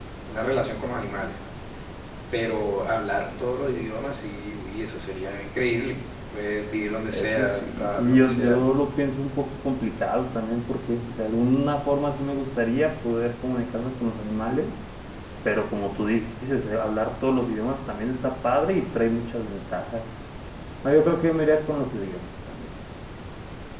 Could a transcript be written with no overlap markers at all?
No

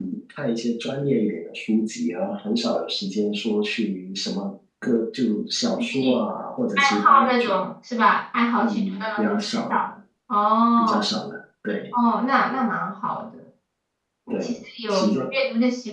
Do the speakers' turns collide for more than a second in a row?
Yes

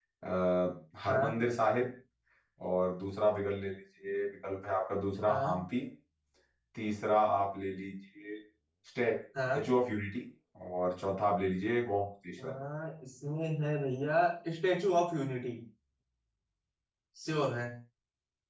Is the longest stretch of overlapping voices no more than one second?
Yes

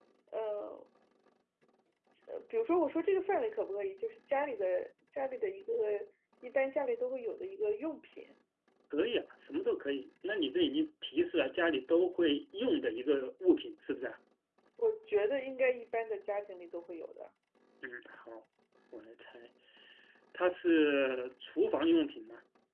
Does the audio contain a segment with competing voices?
No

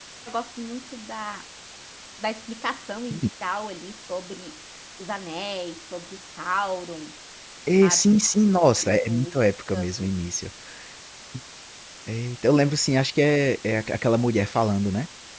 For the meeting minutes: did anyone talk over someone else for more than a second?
Yes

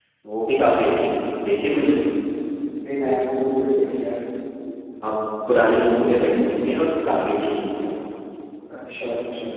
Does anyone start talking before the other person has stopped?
No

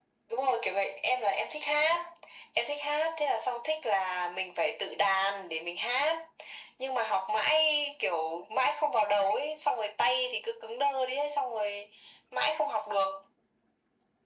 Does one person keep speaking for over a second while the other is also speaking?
No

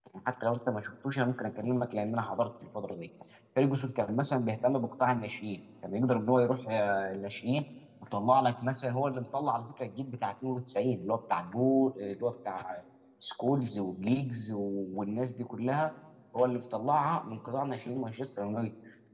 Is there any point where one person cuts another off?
No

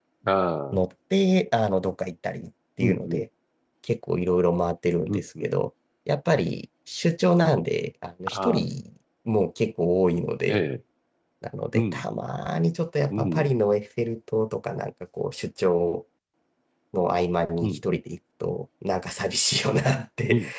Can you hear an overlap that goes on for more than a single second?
No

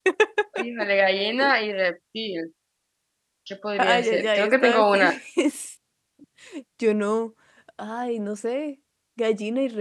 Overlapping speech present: Yes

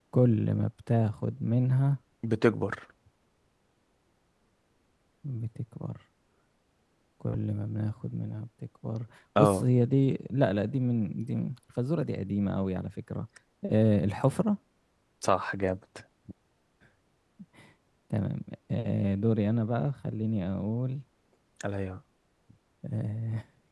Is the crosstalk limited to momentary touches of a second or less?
Yes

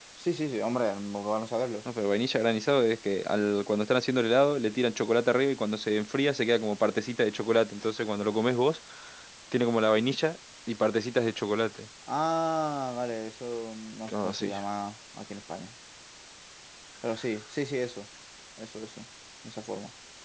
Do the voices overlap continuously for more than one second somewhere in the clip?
No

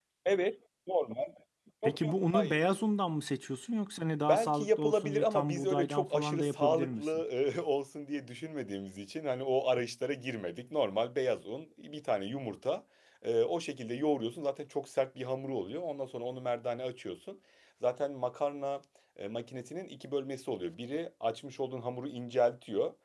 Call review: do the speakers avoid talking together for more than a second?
No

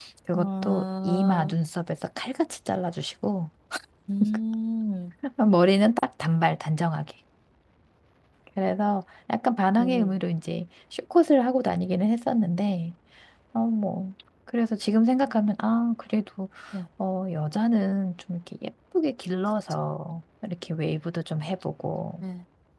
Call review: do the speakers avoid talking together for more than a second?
No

